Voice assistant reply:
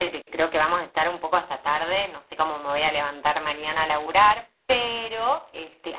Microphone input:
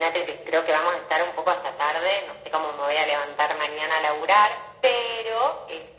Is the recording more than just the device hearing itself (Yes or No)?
No